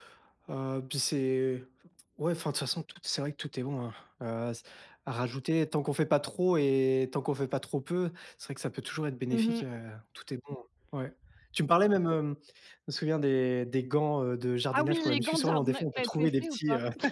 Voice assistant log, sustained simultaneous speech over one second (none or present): present